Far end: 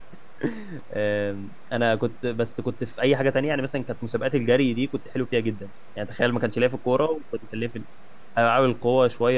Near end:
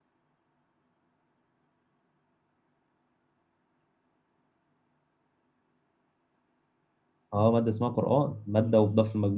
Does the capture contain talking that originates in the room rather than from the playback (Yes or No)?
Yes